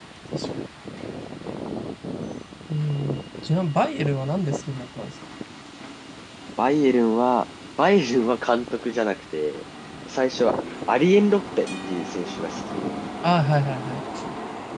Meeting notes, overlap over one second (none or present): none